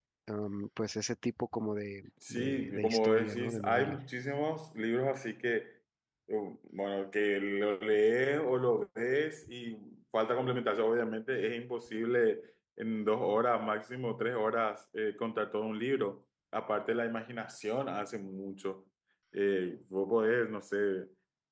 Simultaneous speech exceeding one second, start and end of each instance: 2.3-4.0

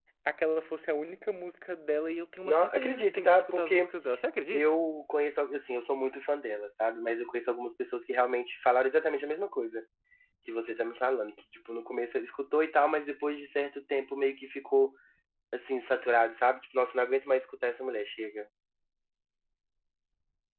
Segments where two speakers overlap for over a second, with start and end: 2.4-3.9

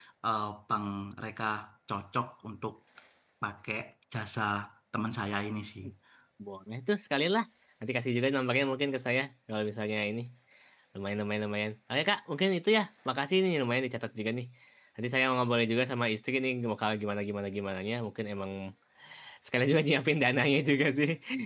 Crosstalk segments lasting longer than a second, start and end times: none

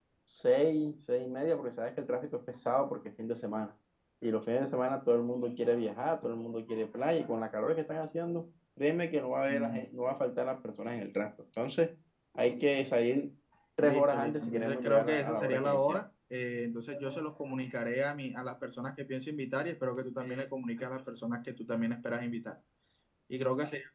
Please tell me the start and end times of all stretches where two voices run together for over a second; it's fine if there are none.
13.8-16.0

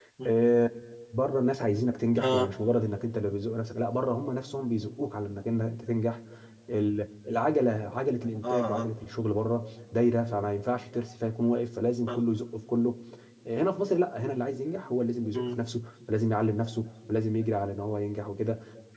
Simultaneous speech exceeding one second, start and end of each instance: none

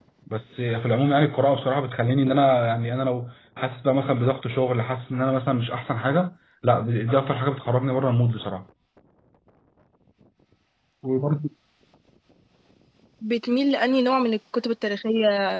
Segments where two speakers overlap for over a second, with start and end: none

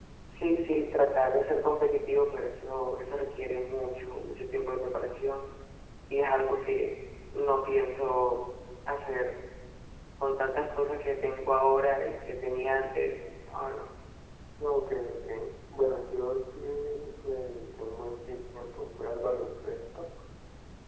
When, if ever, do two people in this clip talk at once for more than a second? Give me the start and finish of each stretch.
none

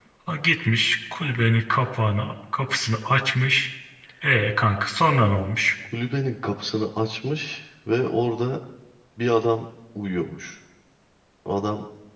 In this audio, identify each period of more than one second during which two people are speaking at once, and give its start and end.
none

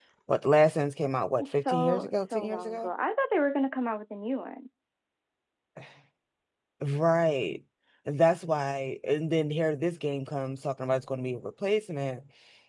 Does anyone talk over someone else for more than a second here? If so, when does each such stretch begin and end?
1.4-2.9

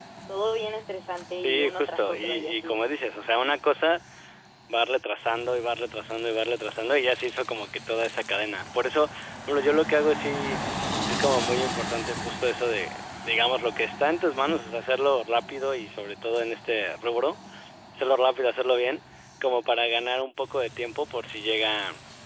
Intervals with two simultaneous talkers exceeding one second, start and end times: 1.4-2.8

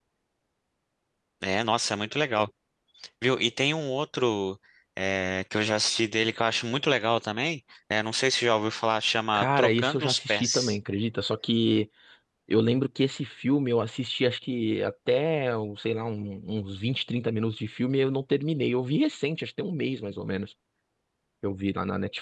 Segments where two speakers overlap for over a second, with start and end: 9.3-10.8

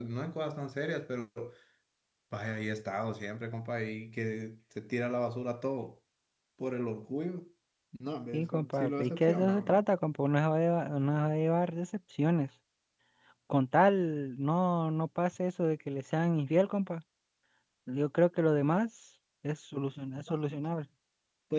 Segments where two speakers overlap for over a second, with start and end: 8.3-9.8

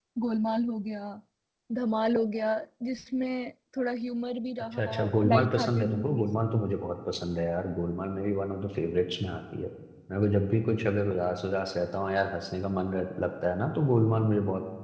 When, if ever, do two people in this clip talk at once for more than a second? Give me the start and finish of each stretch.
4.7-6.3

